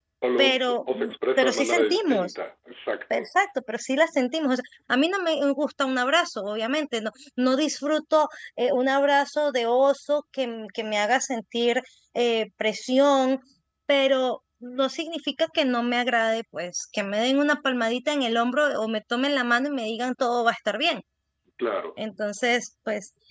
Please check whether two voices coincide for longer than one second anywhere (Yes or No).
Yes